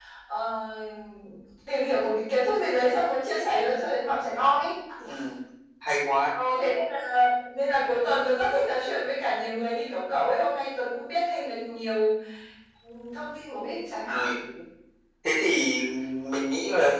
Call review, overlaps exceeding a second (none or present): none